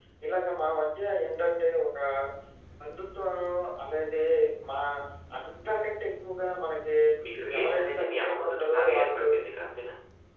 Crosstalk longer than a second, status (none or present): present